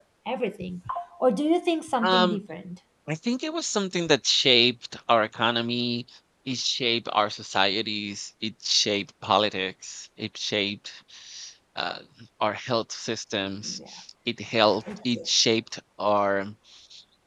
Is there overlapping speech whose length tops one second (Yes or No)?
No